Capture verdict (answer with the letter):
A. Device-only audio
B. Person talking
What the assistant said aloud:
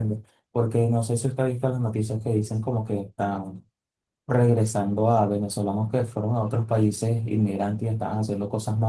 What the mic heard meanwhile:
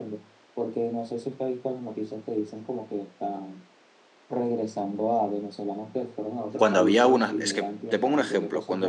B